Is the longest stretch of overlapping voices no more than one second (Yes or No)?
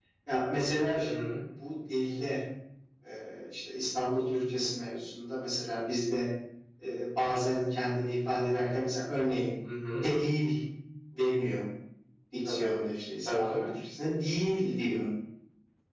Yes